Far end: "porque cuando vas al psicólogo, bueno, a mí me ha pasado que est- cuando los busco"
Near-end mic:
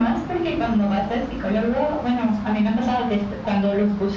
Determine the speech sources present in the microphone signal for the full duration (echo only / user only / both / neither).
echo only